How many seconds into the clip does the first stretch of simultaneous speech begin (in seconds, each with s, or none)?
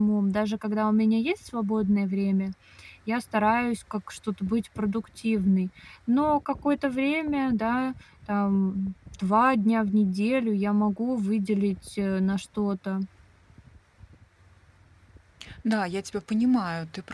none